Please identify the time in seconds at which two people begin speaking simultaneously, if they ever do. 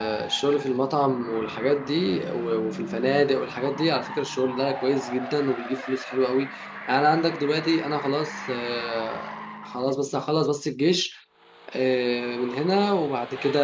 none

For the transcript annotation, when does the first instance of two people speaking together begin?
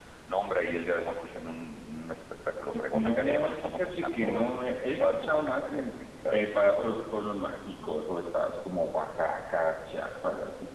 2.9 s

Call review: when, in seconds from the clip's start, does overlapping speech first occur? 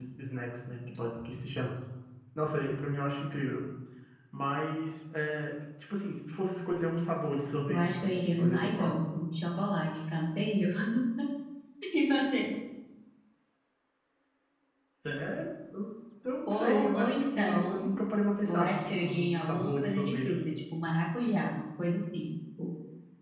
7.7 s

